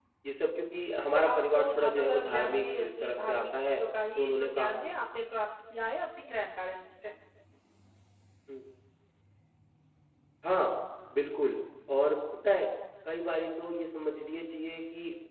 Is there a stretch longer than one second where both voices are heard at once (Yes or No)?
Yes